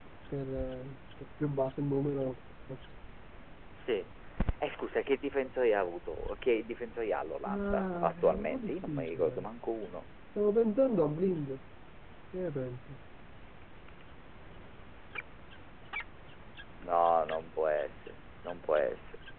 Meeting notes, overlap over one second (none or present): present